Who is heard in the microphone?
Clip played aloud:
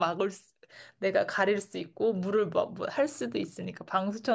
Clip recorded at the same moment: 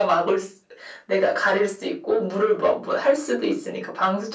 echo only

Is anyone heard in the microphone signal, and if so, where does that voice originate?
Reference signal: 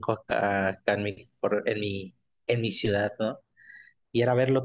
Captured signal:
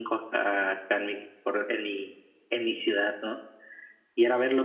echo only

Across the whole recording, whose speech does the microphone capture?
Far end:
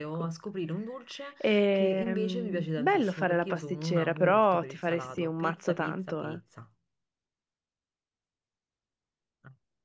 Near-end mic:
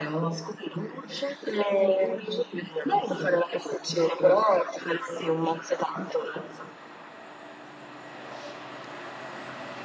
echo only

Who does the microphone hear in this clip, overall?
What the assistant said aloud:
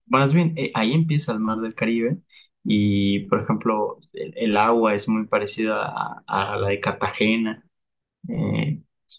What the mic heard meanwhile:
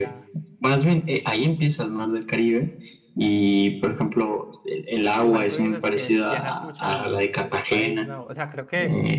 both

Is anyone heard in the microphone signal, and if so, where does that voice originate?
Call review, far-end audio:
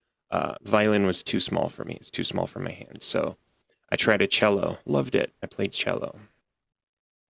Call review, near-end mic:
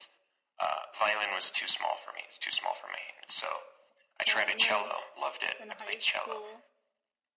both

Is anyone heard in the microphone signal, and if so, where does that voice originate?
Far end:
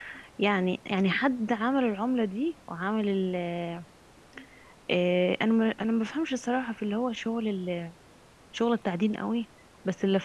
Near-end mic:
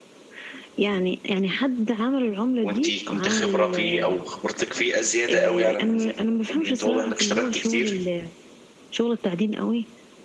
both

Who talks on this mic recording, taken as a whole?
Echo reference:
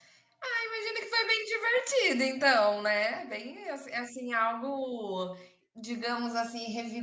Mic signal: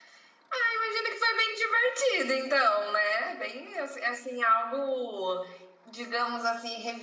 echo only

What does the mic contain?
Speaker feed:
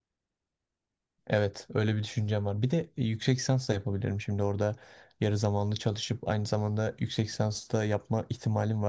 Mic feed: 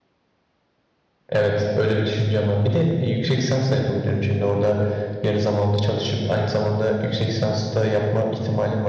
echo only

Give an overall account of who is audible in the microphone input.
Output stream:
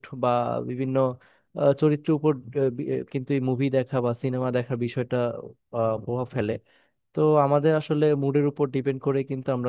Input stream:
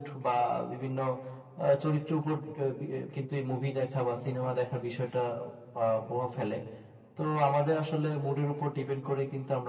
echo only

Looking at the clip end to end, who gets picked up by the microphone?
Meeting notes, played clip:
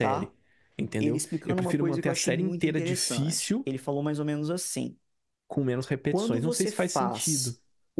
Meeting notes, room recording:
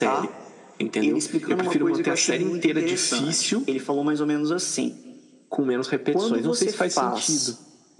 echo only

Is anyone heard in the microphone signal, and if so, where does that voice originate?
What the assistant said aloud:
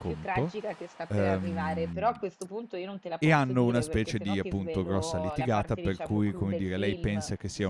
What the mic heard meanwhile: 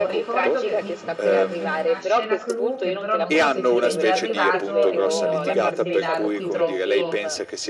both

